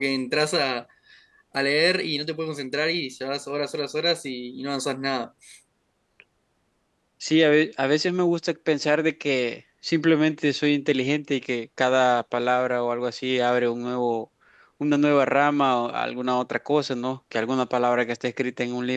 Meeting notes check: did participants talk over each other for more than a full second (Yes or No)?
No